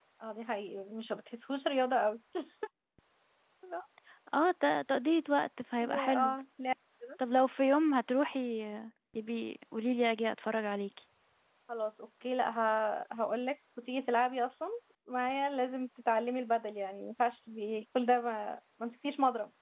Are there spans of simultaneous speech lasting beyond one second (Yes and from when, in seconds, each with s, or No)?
No